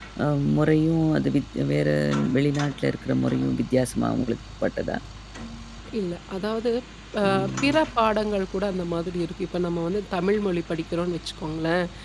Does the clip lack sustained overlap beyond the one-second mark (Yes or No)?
Yes